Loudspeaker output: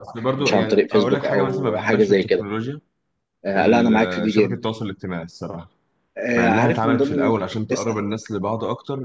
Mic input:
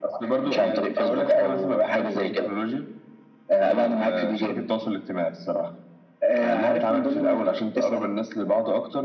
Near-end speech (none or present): none